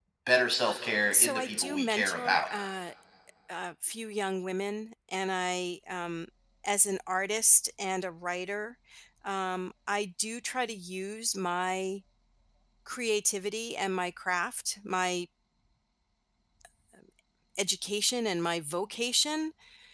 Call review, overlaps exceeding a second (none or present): present